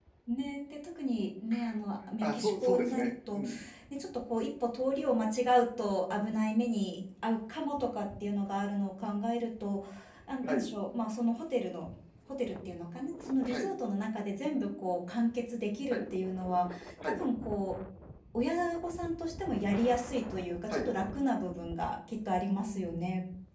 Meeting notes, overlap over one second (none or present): present